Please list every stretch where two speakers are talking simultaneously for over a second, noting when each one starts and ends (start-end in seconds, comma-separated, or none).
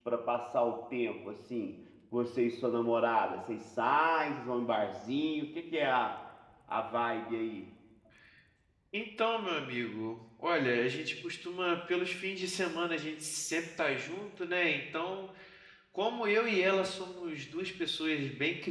none